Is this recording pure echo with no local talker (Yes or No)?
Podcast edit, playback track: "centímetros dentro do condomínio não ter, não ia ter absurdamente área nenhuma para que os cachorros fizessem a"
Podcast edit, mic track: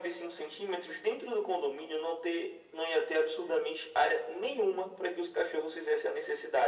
Yes